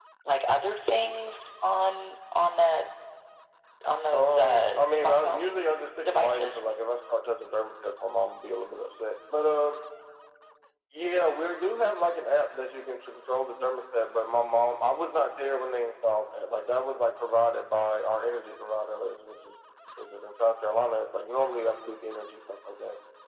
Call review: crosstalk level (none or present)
present